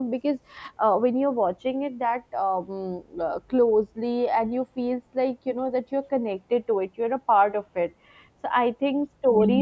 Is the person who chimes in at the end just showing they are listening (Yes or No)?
Yes